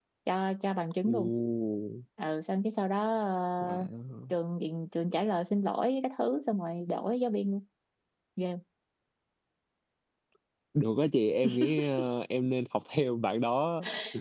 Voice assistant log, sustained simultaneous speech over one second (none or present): none